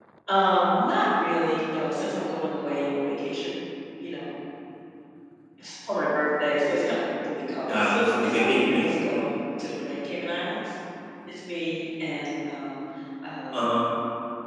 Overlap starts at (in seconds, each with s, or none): 7.7 s